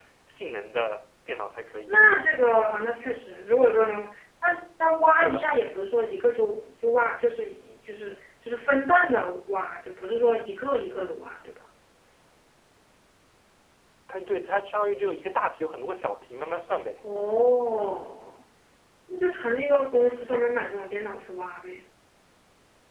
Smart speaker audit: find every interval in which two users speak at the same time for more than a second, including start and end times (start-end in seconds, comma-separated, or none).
none